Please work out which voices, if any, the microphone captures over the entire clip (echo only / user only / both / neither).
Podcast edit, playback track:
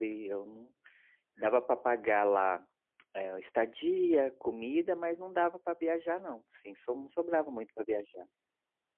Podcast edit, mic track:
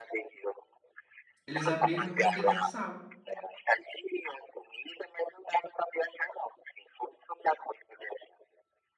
both